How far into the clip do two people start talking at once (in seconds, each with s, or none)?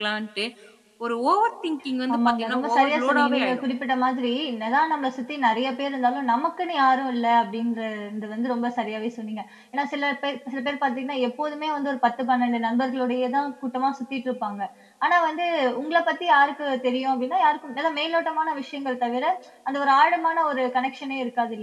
2.1 s